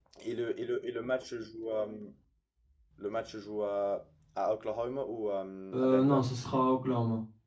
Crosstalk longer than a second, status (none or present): none